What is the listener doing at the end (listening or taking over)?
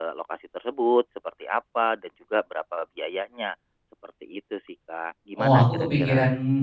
taking over